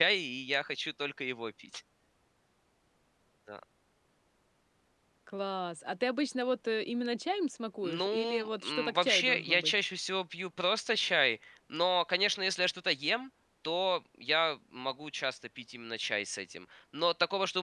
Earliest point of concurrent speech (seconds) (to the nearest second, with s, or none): 8 s